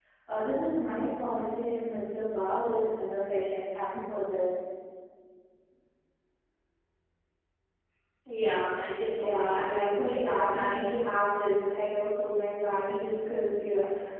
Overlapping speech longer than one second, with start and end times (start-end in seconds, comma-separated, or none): 9.2-10.9